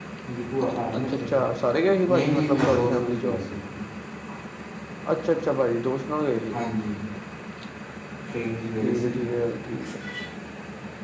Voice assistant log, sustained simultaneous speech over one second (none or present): present